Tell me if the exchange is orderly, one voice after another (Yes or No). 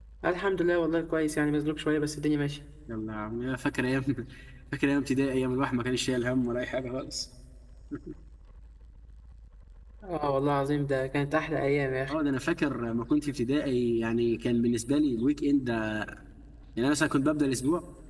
Yes